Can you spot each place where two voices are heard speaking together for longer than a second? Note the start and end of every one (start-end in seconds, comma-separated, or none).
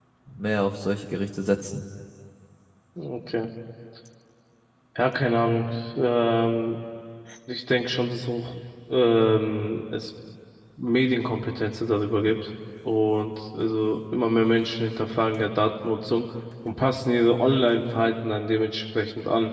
none